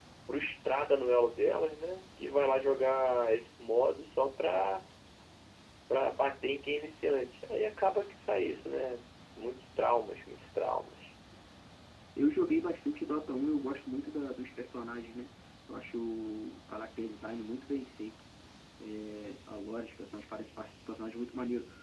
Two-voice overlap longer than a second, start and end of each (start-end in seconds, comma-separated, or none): none